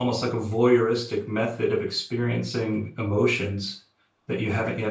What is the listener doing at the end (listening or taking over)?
taking over